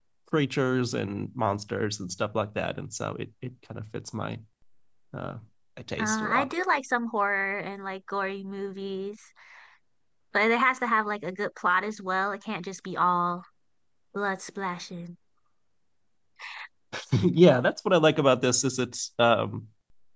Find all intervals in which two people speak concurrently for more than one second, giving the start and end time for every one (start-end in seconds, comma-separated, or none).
none